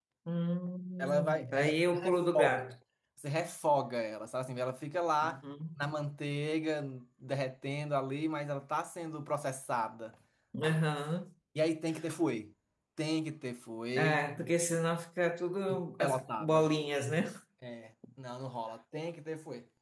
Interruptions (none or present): present